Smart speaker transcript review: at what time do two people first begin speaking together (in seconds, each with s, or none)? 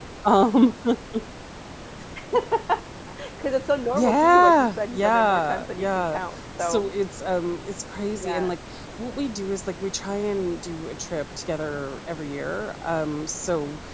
4.0 s